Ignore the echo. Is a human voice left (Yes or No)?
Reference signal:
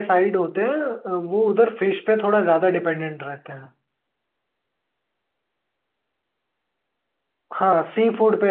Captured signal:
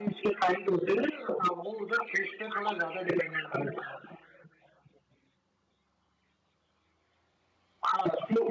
No